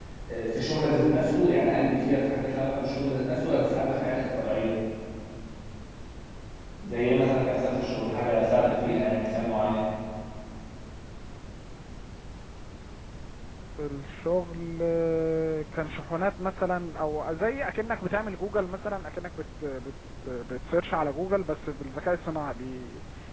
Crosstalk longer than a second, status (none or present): none